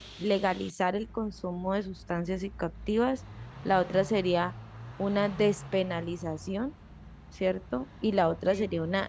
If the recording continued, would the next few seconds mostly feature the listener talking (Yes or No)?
No